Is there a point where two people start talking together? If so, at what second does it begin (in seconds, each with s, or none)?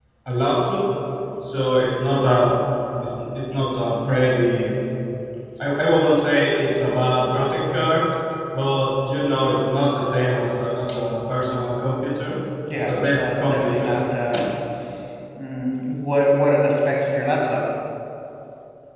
12.8 s